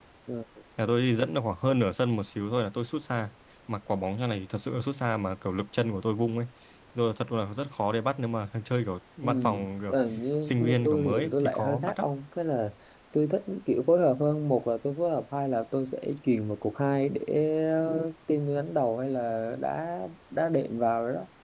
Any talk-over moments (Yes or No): Yes